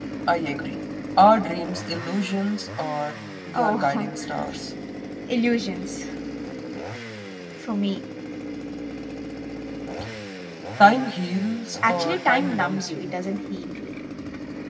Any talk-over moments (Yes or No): Yes